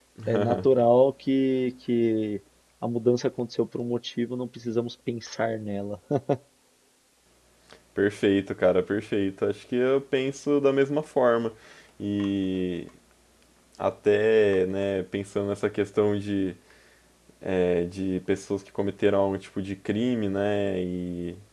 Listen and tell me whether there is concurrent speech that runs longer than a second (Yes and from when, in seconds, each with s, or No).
No